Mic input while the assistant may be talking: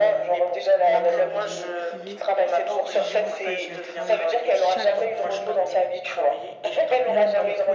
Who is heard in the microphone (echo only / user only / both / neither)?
both